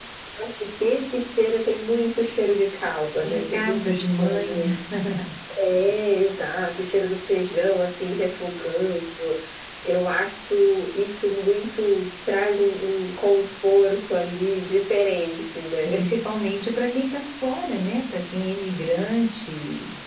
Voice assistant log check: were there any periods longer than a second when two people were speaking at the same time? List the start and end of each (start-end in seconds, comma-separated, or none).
3.2-4.6